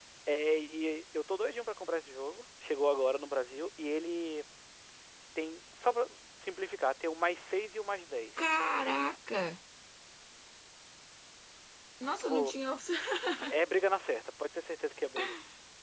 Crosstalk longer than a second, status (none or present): none